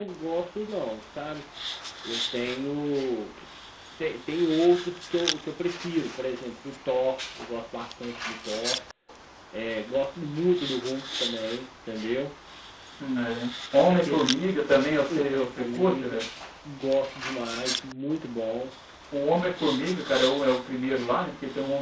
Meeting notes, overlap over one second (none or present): present